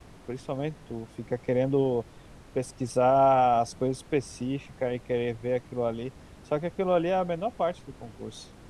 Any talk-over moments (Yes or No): No